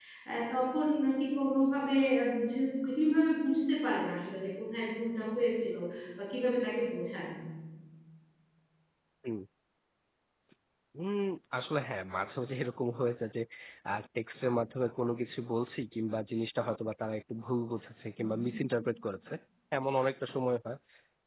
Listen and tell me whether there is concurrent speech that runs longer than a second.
No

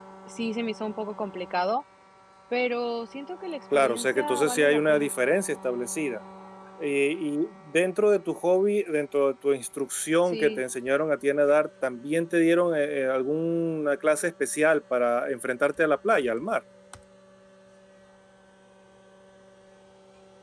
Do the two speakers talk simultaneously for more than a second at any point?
Yes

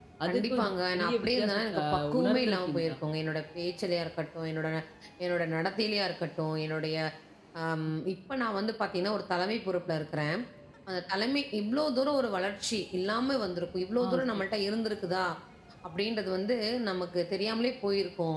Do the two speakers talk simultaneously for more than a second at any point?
Yes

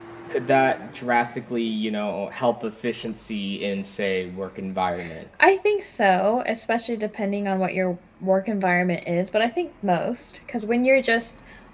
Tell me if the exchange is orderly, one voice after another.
Yes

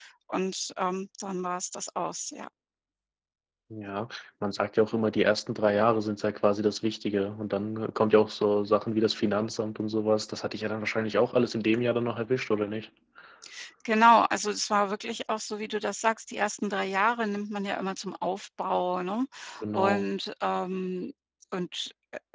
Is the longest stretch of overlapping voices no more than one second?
Yes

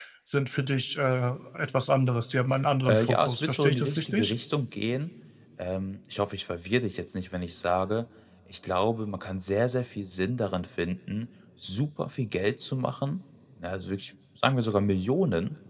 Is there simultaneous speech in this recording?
Yes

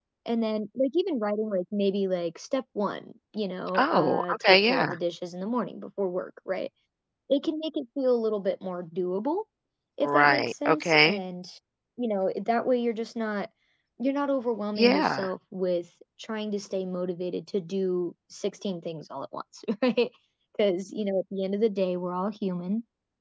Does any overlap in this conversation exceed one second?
Yes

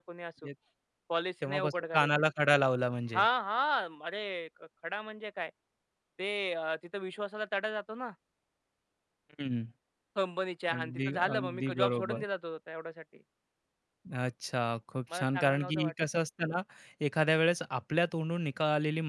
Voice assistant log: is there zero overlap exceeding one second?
No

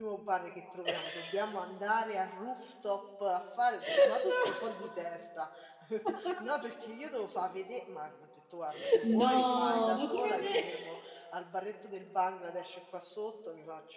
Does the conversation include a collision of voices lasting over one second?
Yes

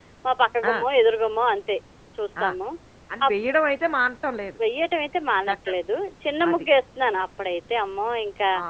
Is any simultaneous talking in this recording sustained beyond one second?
No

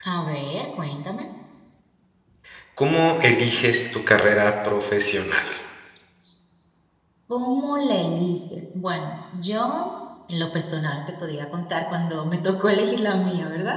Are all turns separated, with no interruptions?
Yes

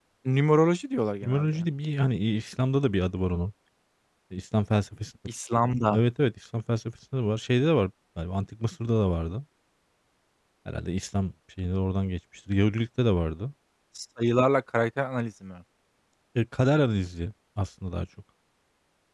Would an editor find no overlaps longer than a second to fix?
Yes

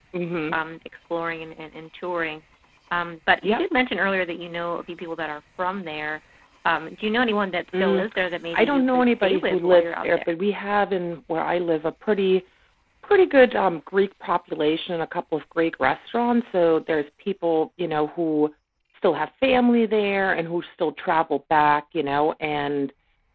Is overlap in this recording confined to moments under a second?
No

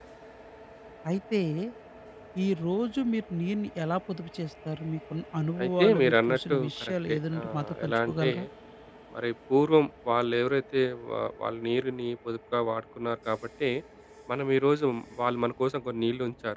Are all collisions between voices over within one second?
No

